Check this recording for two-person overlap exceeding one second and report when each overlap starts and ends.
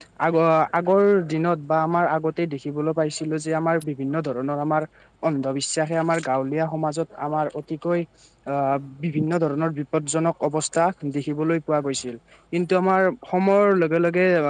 none

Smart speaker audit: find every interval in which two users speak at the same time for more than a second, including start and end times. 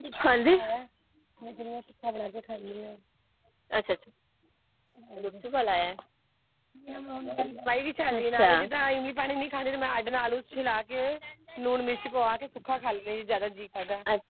none

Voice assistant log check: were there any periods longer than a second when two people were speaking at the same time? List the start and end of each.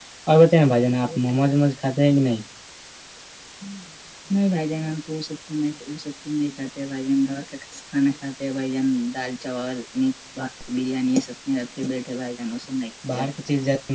none

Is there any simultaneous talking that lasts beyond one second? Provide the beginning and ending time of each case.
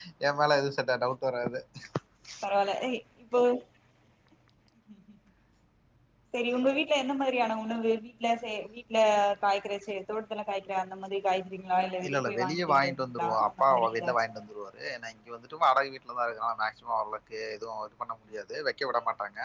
12.1-14.2

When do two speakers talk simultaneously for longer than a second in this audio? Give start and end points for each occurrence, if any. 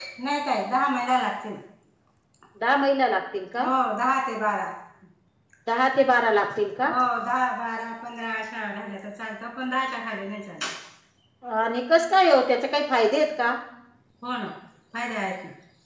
none

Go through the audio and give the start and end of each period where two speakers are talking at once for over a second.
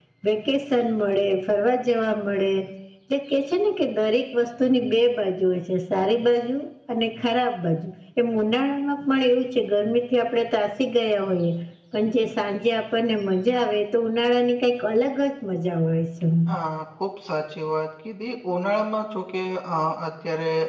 none

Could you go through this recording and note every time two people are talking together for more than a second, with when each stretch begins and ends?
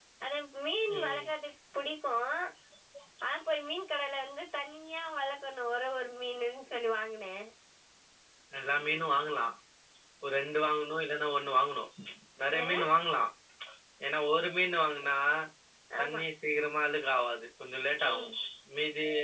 none

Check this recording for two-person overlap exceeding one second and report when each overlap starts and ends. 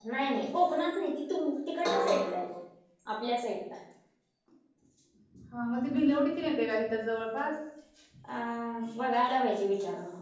none

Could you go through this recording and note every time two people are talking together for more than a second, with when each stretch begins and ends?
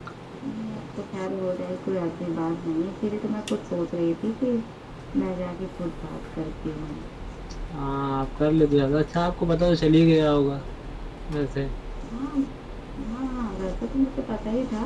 none

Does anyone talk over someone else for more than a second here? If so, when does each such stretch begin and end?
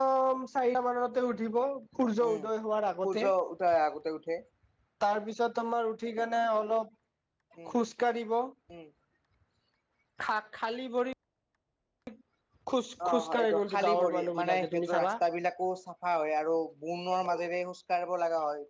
13.1-15.1

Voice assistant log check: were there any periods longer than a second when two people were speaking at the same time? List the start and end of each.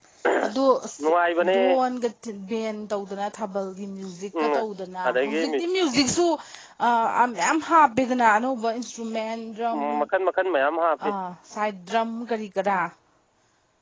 none

